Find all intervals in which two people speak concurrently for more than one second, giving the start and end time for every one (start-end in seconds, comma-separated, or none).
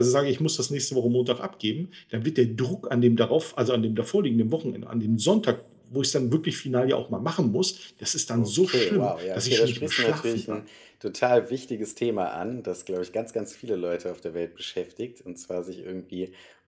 8.4-10.6